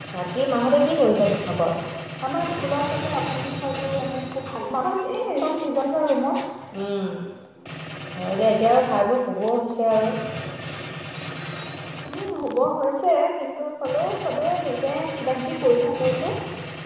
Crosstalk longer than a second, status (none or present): none